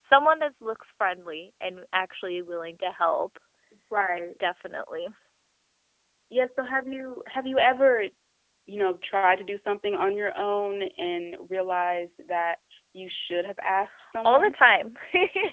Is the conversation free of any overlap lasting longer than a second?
Yes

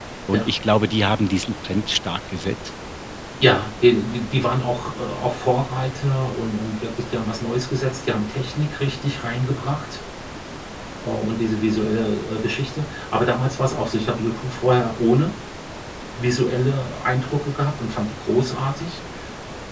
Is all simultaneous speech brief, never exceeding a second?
Yes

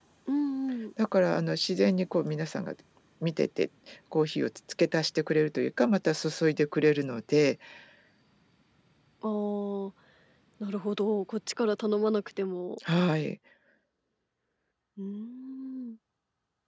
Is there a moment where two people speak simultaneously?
No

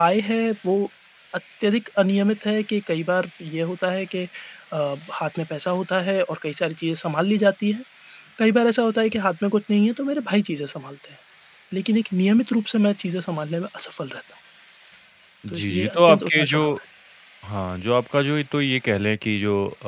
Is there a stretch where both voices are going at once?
Yes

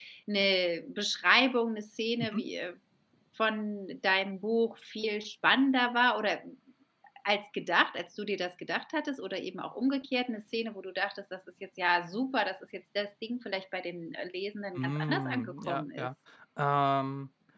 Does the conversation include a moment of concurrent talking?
Yes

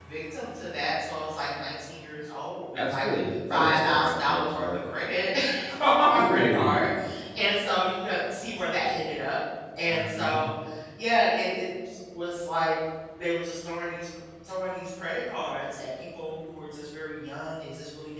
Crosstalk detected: Yes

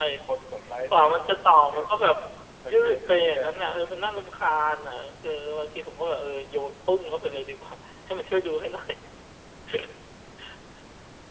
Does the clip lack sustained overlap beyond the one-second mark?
No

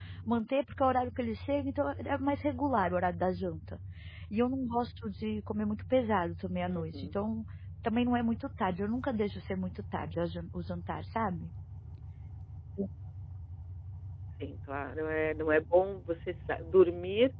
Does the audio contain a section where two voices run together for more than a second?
No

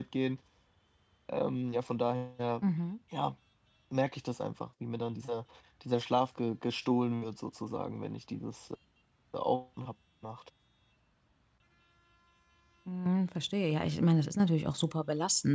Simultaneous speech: No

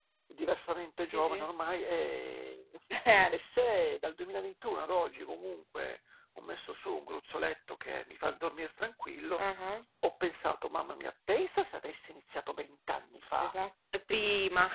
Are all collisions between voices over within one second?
Yes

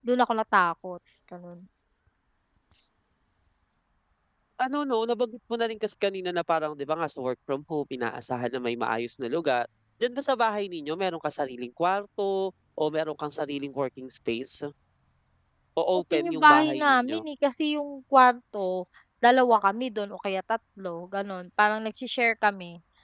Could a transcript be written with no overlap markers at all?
No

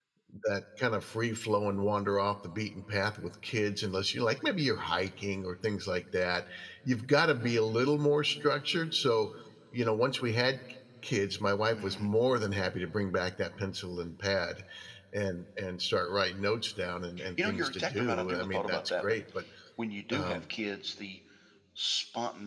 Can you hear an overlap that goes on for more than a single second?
Yes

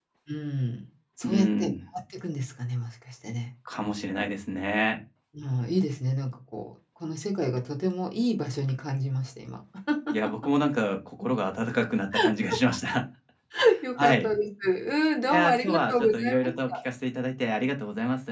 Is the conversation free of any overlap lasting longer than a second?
No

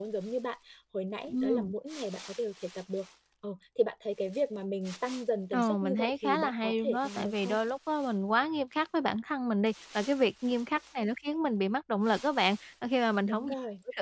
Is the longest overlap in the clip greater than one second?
Yes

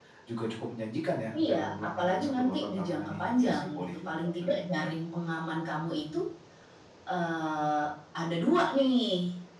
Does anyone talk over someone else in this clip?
Yes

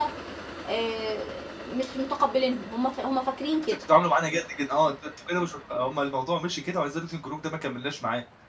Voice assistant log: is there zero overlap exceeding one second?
Yes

